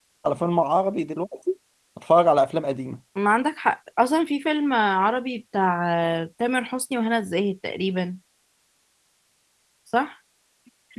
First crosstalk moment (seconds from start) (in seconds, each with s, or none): none